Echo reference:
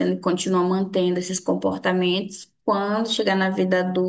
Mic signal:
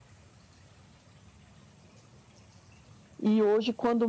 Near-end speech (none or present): present